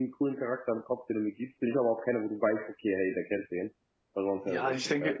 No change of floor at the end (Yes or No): No